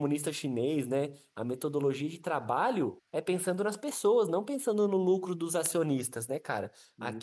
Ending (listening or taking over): listening